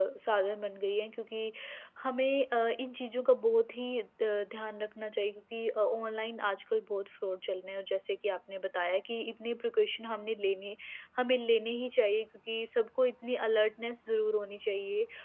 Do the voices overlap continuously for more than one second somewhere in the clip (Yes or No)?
No